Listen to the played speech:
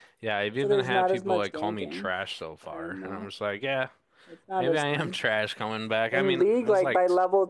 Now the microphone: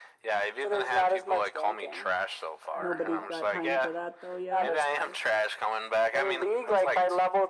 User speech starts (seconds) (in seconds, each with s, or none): 2.7 s